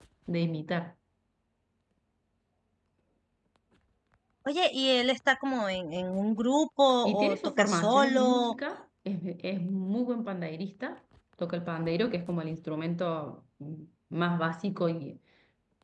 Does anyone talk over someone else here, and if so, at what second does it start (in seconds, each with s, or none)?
7.0 s